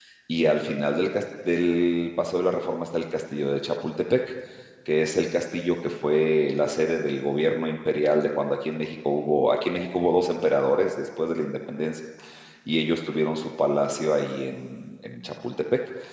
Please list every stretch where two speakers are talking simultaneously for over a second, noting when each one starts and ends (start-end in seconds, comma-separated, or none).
none